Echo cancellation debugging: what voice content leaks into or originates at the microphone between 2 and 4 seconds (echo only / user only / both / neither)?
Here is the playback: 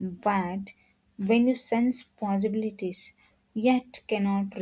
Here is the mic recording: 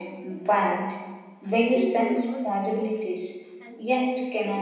both